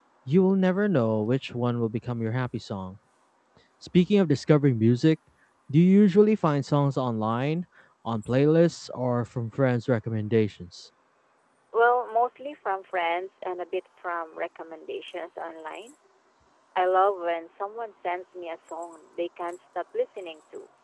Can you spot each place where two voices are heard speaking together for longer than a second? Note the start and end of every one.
none

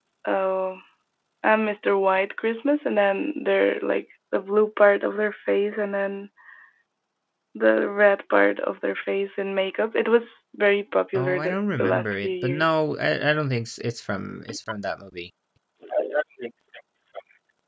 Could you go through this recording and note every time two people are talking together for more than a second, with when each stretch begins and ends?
11.1-12.6

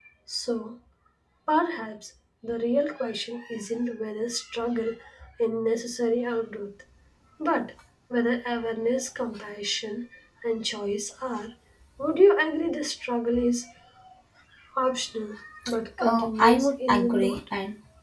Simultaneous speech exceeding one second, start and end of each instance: 16.0-17.4

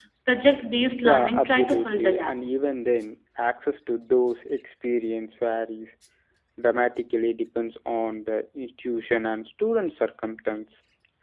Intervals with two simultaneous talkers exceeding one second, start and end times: 1.0-2.3

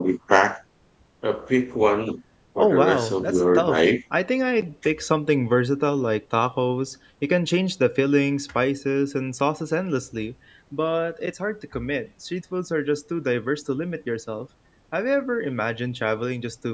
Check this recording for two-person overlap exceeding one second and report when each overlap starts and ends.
2.6-3.9

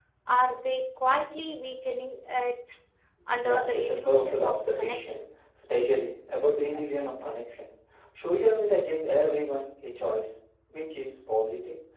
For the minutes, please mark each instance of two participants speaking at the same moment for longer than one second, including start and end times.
3.4-5.2

